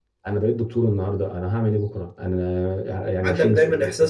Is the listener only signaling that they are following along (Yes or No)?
No